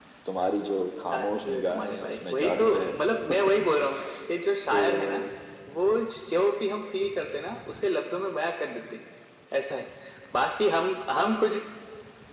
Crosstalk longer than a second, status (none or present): present